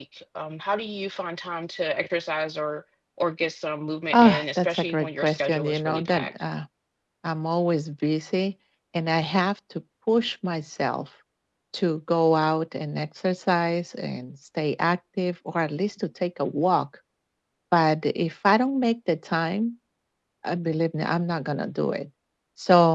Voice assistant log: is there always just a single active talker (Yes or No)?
No